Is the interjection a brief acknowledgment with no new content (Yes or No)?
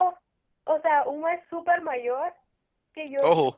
Yes